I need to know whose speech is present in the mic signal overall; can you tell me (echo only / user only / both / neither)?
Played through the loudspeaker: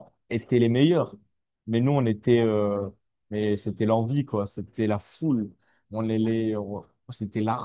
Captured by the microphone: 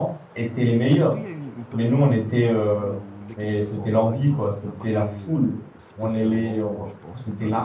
both